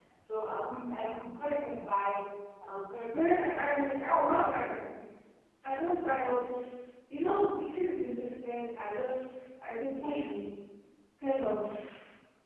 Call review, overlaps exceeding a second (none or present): present